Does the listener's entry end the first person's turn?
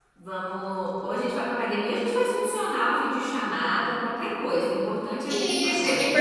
Yes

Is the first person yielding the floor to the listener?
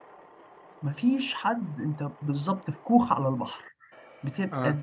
No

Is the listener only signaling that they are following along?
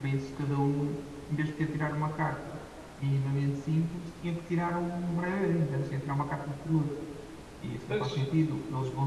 Yes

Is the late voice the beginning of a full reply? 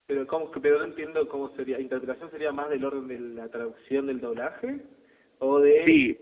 Yes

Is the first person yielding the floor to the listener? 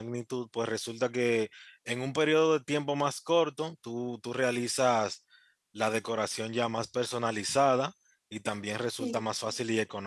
No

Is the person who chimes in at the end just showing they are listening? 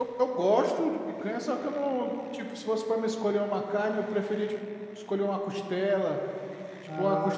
Yes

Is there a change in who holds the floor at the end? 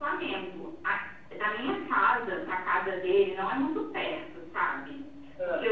No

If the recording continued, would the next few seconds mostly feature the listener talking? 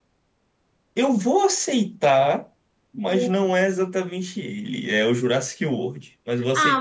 Yes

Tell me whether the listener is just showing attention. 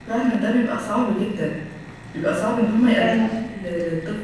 Yes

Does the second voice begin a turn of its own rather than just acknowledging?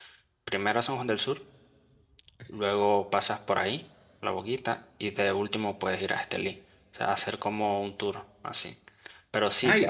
Yes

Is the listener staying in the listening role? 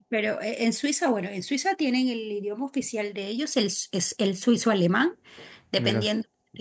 Yes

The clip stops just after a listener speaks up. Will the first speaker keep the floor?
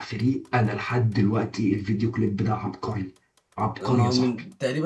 No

